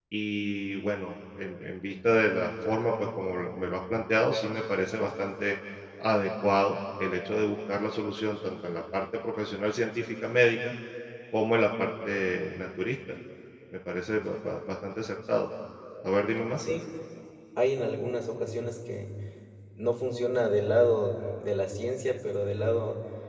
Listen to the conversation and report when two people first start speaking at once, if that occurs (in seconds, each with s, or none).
none